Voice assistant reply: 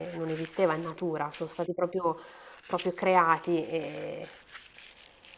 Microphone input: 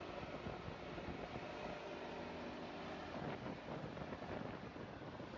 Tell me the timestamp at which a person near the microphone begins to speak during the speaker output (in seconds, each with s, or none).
none